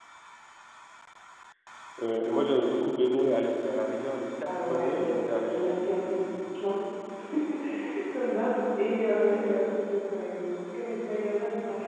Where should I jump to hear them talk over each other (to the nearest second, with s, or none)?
4 s